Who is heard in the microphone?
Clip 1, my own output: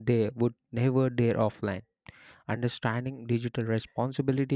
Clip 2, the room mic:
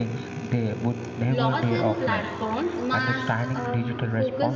both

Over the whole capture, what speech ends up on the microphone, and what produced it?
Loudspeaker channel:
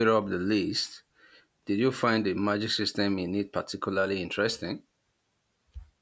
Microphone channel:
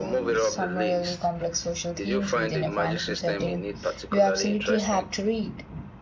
both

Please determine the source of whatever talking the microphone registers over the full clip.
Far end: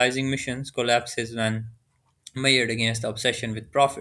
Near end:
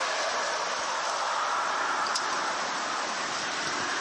neither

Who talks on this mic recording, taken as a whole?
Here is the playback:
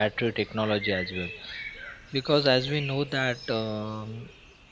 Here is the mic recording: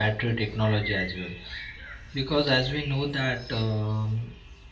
echo only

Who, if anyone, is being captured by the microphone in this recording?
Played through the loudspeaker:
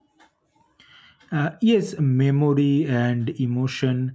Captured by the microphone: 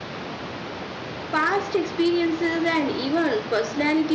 user only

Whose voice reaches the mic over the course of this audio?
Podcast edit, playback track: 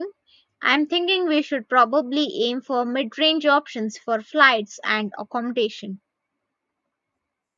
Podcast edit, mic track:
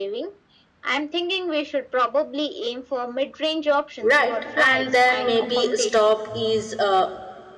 both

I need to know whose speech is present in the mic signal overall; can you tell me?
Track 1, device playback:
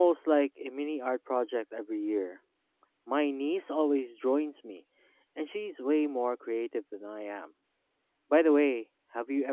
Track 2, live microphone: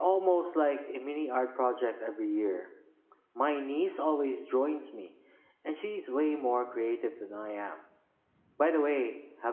echo only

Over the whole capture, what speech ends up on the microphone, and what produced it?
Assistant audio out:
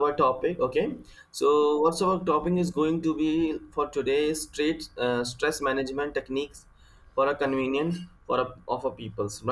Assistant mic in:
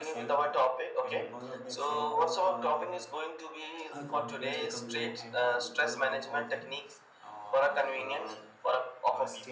both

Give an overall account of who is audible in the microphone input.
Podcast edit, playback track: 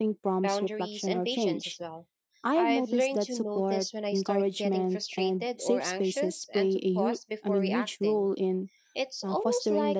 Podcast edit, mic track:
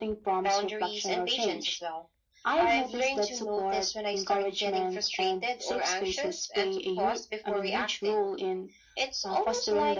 echo only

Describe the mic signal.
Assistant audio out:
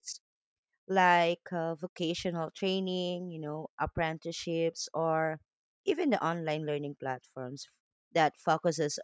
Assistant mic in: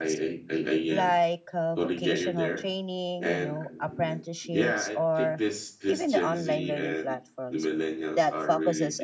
both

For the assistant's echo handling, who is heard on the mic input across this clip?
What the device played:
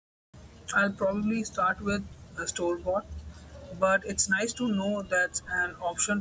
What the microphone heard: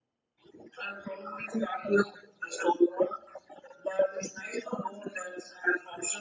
echo only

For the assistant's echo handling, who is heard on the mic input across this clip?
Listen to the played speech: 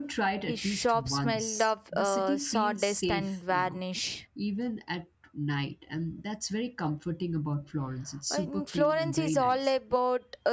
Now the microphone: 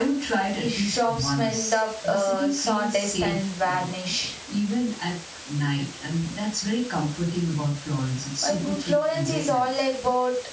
echo only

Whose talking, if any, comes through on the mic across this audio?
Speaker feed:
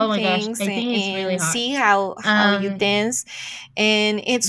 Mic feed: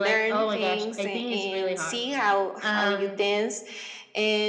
echo only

